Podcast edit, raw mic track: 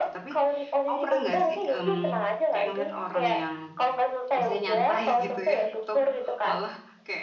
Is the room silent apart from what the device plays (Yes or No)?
No